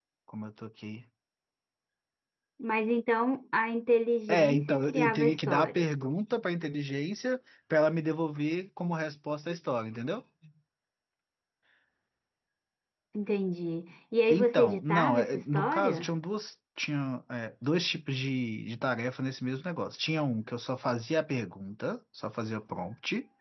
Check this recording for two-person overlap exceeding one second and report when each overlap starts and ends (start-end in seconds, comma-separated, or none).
4.3-6.0, 14.3-16.1